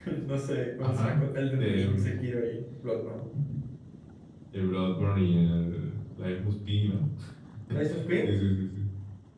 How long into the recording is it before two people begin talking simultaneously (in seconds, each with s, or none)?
0.8 s